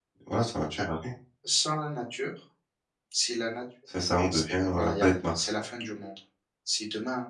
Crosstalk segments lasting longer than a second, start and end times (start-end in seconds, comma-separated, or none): 4.3-5.5